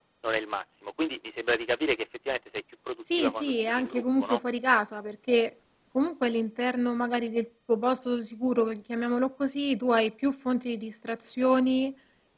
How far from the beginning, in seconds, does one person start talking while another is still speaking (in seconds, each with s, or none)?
3.1 s